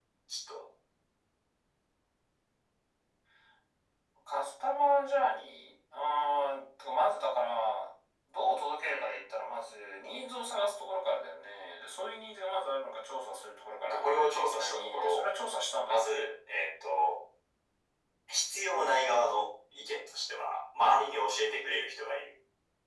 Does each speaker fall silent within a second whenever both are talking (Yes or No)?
No